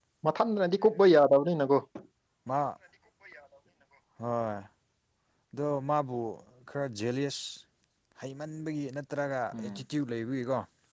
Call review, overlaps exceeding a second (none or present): none